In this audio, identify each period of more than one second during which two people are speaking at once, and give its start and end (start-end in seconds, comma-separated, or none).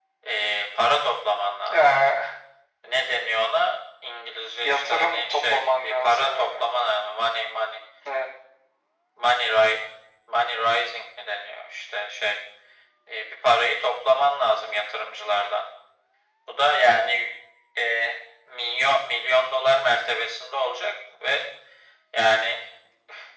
4.6-6.6